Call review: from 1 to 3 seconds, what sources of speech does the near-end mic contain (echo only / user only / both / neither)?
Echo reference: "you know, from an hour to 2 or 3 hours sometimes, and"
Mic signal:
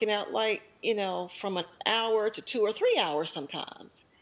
echo only